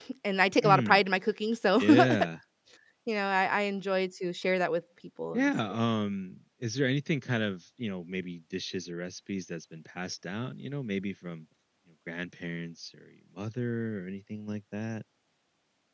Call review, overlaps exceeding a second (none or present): none